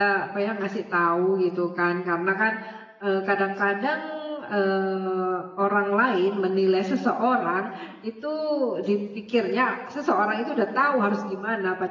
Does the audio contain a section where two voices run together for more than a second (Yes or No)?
No